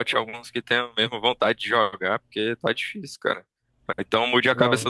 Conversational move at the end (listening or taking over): listening